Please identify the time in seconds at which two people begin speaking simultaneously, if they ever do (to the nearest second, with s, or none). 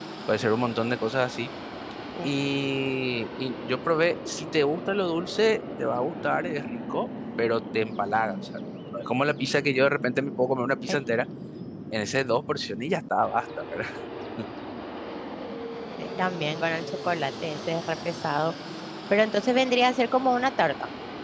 none